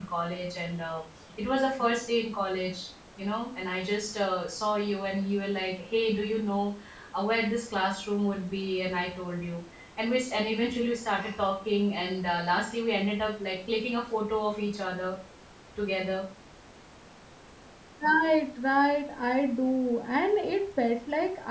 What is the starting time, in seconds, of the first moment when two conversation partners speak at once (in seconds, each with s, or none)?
none